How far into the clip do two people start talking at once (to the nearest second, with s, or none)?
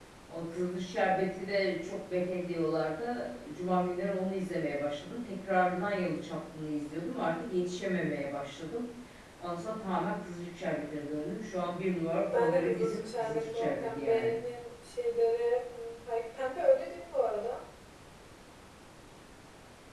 12 s